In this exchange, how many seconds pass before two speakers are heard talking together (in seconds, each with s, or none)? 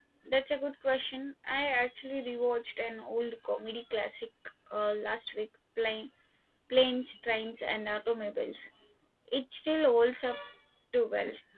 none